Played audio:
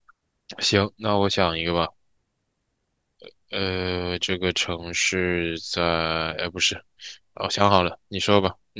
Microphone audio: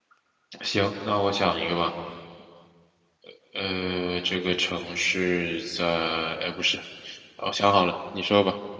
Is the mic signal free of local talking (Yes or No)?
Yes